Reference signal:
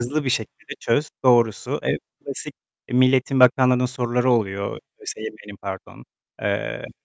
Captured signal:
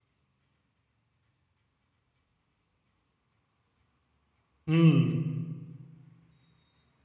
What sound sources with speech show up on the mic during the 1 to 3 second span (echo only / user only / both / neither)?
neither